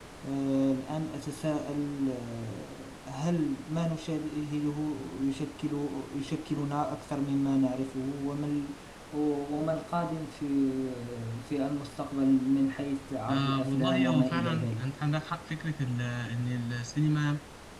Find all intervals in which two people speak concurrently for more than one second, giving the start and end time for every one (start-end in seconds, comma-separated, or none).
13.3-14.9